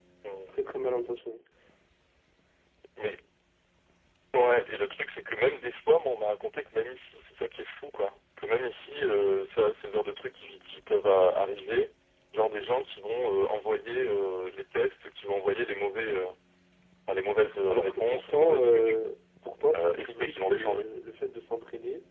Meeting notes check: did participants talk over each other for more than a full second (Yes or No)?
Yes